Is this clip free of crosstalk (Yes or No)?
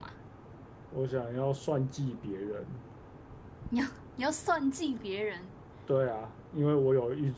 Yes